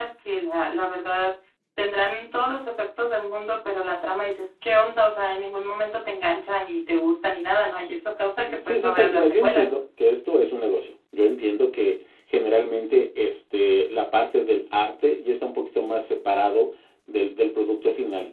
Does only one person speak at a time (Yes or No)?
No